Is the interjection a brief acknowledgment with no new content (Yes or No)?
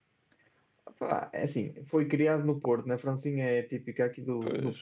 Yes